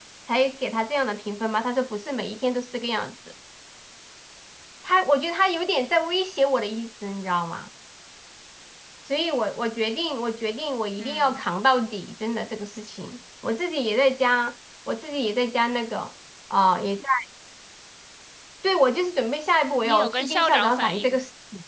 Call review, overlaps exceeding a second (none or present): present